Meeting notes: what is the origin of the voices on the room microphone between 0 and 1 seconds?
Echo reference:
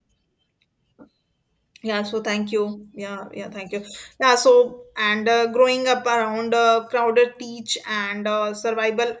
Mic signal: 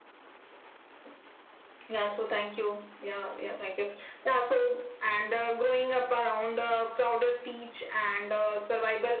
neither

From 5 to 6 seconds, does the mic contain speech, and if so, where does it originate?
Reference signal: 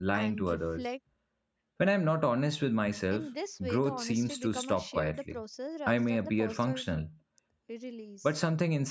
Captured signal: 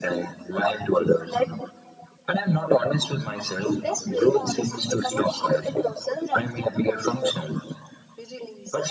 echo only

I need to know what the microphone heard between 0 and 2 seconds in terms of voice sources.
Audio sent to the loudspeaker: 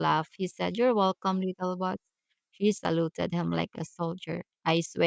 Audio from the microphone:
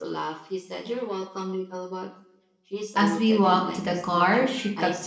echo only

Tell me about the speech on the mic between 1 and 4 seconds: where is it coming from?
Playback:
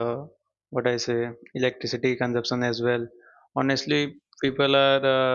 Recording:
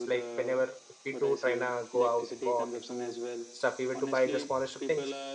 both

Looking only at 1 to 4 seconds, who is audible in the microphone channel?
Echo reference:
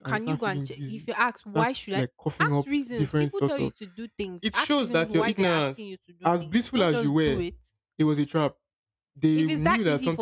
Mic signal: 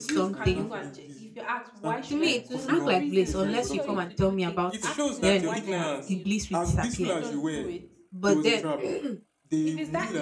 both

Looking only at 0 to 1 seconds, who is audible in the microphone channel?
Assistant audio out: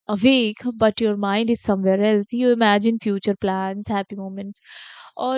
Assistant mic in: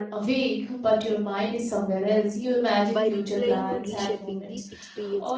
echo only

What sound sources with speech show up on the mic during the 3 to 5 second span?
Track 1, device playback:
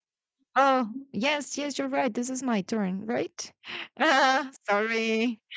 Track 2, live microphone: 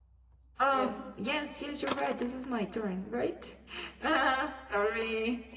echo only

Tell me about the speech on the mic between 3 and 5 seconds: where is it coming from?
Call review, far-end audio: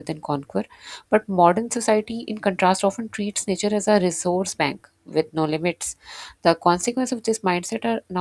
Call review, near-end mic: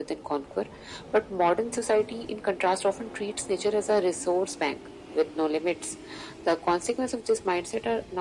echo only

